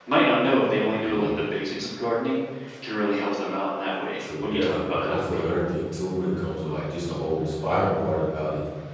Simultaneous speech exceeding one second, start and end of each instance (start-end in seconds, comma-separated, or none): 4.2-5.4